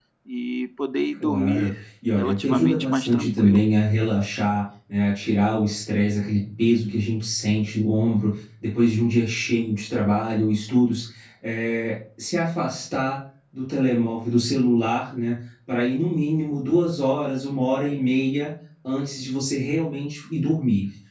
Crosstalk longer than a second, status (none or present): present